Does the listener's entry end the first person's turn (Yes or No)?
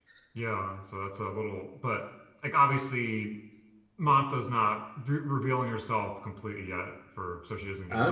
No